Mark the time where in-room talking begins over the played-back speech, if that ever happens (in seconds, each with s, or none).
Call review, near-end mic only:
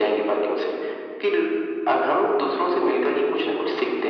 none